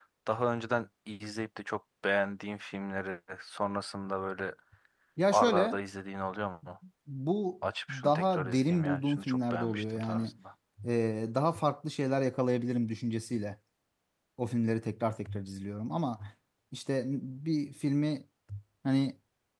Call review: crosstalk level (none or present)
present